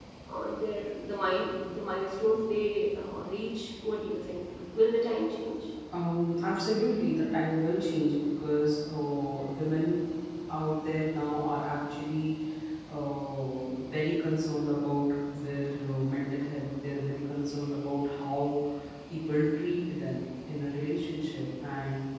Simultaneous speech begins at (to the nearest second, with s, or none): none